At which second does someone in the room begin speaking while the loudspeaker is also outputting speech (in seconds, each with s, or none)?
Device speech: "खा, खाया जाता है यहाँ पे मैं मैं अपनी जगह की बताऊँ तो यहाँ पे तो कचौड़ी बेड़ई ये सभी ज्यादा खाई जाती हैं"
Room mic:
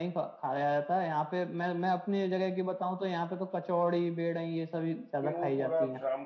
5.2 s